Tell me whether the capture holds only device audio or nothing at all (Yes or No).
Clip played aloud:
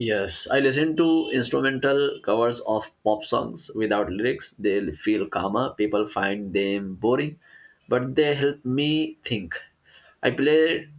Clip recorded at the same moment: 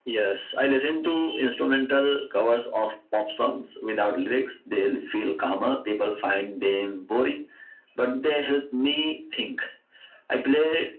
Yes